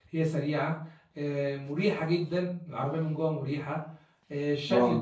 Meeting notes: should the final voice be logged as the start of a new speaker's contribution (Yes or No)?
No